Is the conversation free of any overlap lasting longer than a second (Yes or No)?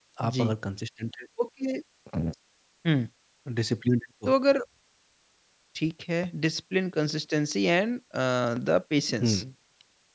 Yes